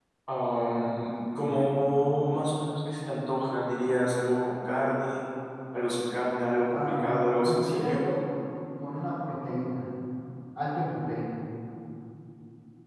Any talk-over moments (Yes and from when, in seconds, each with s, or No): Yes, from 6.7 s